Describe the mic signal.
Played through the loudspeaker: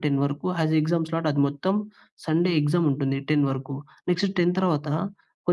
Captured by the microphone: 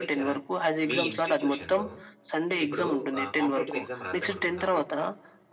both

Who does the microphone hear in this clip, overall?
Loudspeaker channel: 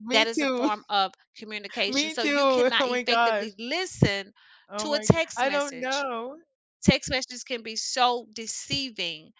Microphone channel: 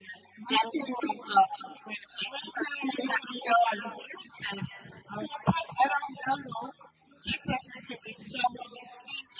echo only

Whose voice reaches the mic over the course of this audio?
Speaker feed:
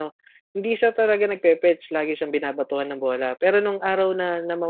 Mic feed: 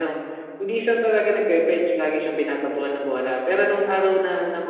echo only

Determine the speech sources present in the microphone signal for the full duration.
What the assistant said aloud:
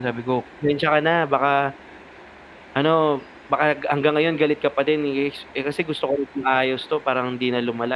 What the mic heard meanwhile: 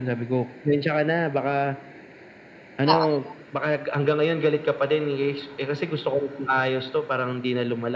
both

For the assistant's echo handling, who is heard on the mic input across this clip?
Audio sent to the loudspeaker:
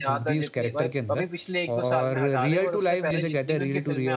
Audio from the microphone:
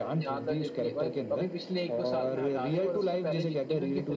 echo only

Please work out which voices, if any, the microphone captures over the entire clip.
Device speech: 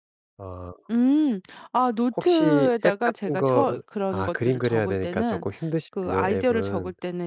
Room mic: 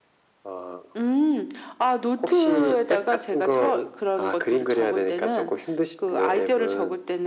echo only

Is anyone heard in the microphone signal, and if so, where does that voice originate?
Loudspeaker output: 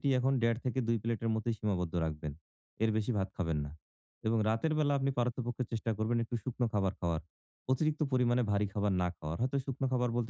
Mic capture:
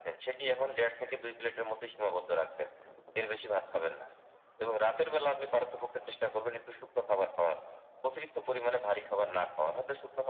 echo only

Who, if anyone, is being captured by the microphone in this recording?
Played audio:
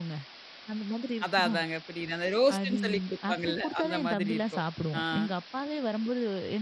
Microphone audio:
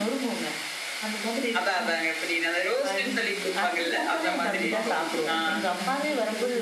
both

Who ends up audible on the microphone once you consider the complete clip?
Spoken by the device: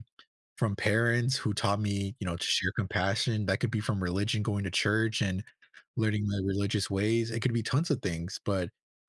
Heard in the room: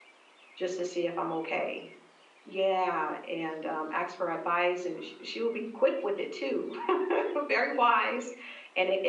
user only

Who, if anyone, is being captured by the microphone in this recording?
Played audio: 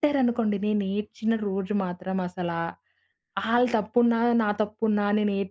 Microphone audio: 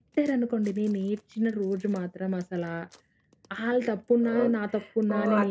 both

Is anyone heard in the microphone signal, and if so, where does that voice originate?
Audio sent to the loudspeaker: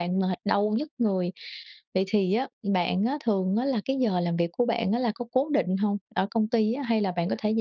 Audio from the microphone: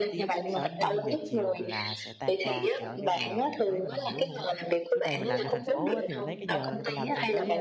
both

